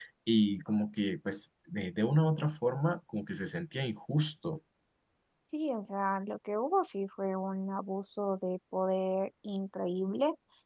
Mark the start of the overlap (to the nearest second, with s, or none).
none